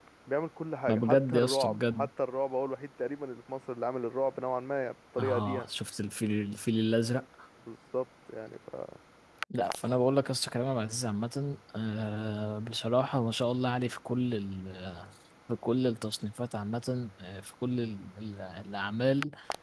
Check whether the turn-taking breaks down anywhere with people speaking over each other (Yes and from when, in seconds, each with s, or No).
Yes, from 0.9 s